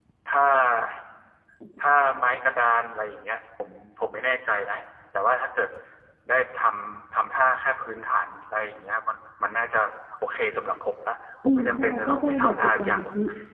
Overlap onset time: 11.4 s

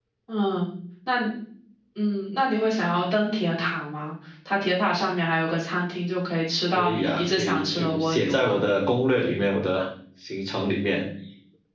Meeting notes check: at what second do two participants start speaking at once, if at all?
6.8 s

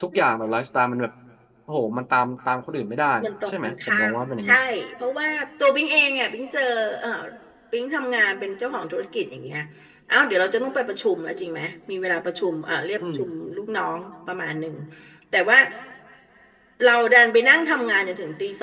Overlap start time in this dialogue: 3.2 s

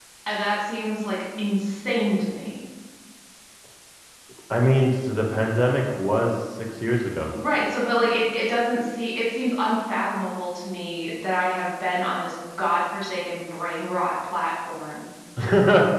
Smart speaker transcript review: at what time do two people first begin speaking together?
none

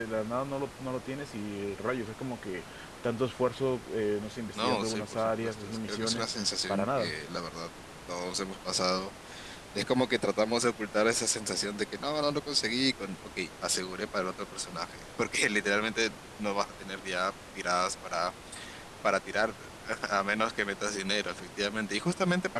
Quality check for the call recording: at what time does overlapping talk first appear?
4.6 s

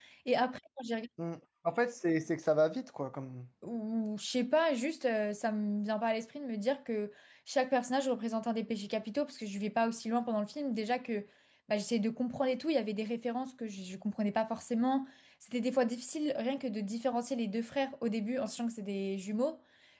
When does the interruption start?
none

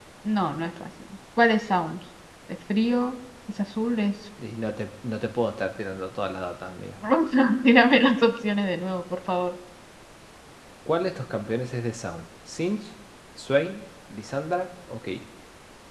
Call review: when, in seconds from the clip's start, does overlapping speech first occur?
none

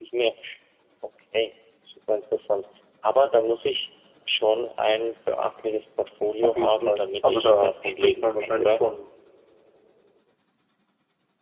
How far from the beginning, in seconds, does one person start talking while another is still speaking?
6.4 s

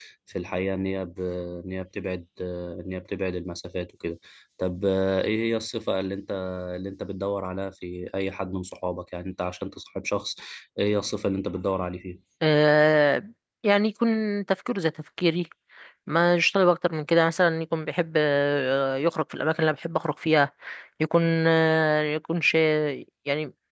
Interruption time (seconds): none

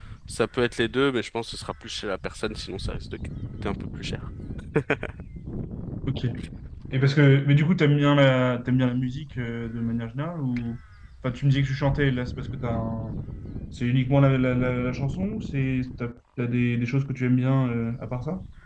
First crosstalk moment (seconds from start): none

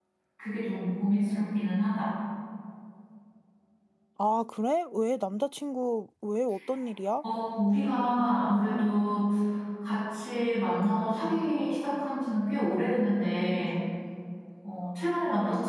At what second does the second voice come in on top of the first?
none

